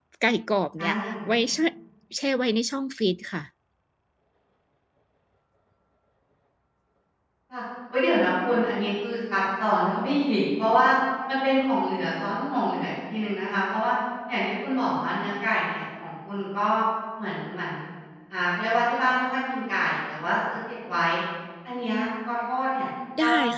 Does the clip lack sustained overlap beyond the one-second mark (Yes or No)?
Yes